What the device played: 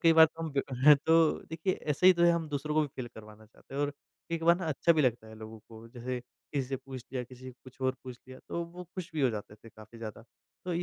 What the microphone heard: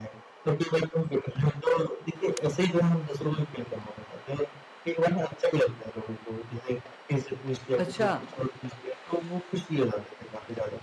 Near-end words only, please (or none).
अच्छा।